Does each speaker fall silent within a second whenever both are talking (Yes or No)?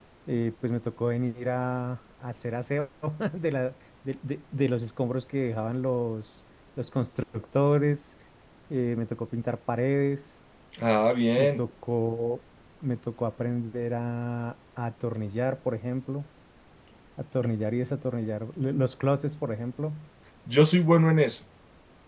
Yes